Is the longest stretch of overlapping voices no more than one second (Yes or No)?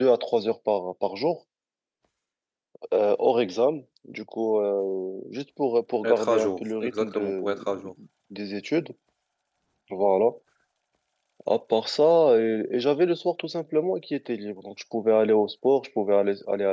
No